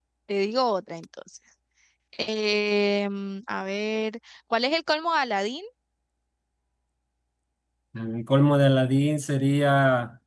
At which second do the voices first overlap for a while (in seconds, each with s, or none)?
none